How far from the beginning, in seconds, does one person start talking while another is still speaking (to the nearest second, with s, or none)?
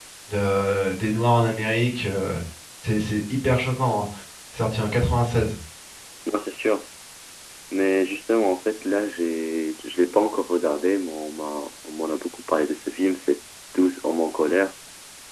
none